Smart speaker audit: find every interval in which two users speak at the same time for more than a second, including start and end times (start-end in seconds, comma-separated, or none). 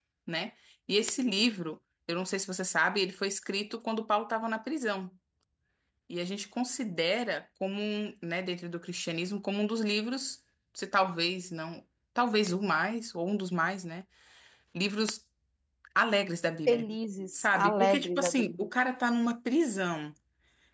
17.3-18.7